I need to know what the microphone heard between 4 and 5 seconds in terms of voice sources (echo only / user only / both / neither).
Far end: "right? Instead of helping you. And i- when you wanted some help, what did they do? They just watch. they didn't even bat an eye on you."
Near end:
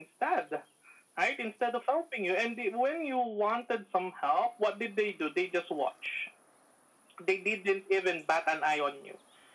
echo only